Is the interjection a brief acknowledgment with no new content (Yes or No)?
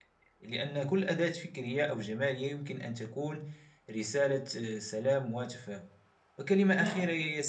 Yes